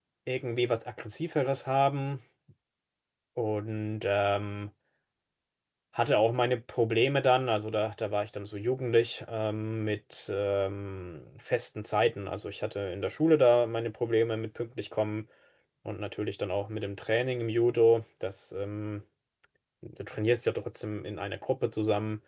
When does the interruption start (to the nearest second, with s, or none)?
none